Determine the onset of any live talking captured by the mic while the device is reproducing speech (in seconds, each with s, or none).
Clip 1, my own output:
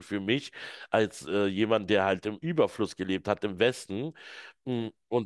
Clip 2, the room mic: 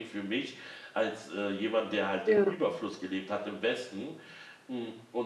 2.2 s